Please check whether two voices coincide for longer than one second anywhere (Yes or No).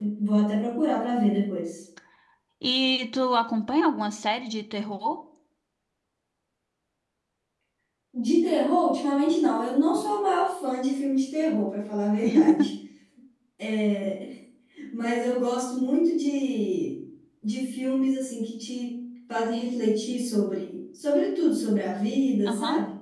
No